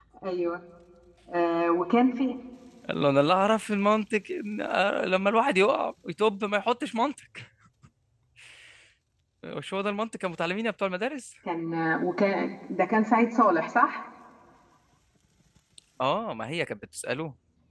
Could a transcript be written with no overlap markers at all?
Yes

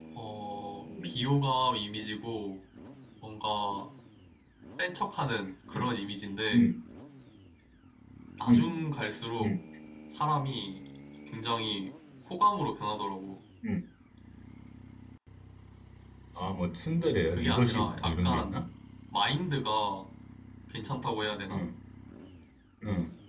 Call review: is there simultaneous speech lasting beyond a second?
Yes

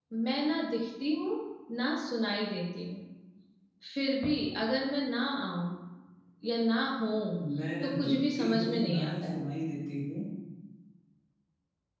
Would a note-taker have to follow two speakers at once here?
Yes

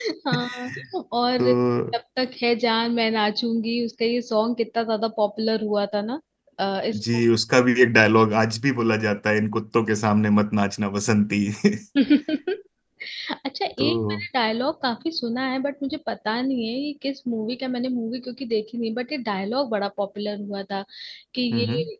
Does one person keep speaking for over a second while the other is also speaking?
No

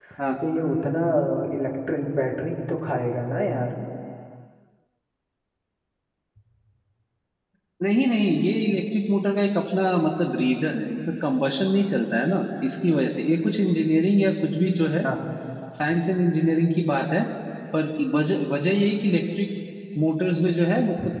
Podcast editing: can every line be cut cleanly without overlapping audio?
Yes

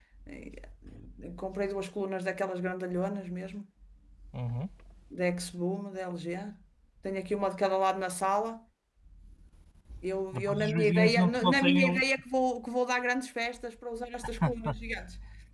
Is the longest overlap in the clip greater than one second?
Yes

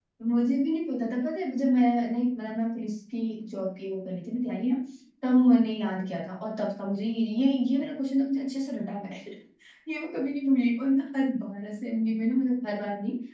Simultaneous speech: No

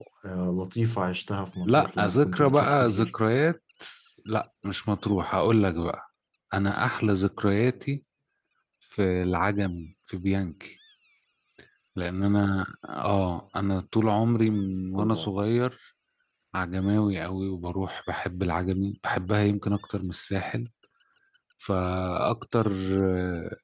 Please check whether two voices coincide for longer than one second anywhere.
Yes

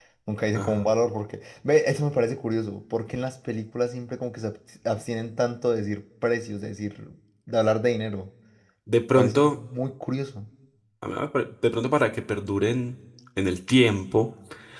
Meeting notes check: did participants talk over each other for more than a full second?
No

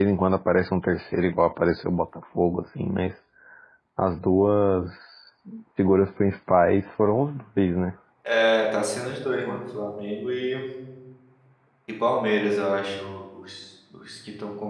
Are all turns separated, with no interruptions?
Yes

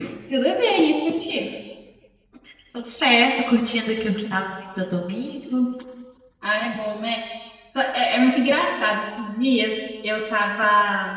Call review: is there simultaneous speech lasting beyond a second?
No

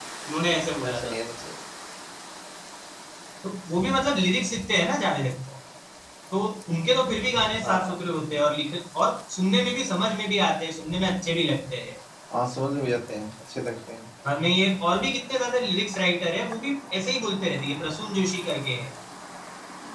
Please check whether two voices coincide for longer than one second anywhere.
No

